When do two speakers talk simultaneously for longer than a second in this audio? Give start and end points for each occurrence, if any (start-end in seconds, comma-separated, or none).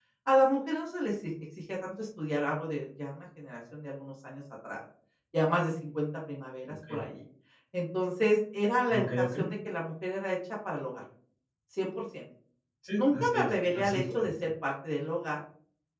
13.0-14.3